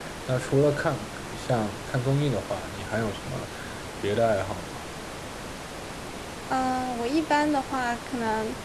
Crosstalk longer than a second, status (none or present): none